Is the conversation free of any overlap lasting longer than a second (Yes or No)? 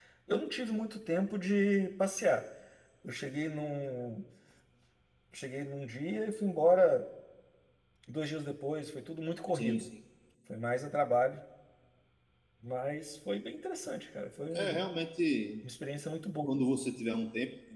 Yes